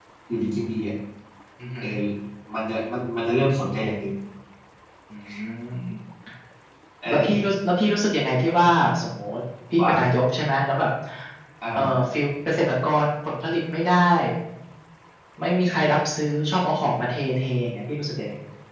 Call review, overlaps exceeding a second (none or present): none